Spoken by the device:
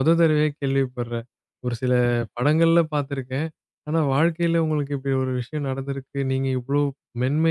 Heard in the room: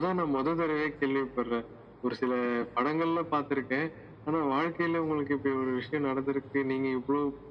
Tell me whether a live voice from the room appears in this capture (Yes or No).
No